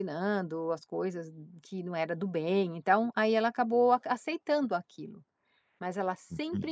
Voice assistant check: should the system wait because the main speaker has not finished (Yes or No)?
Yes